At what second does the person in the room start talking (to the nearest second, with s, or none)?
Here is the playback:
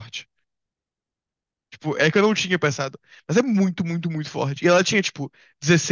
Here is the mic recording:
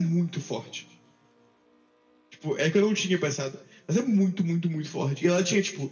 none